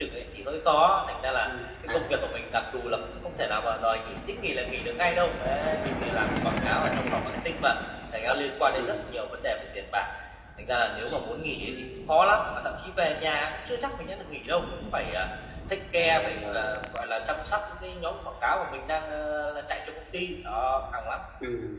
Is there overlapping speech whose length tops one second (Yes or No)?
Yes